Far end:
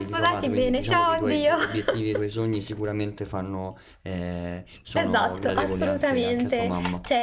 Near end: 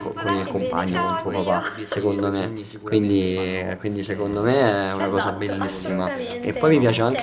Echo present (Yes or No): Yes